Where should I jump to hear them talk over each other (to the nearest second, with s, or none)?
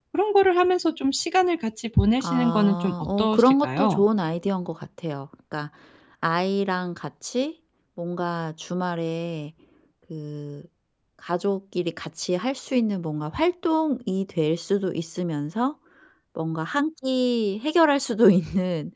2 s